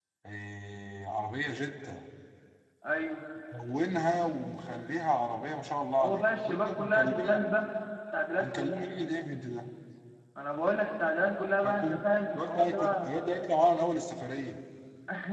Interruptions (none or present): present